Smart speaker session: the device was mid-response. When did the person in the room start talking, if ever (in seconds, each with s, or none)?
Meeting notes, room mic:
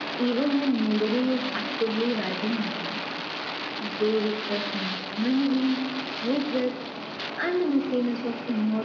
none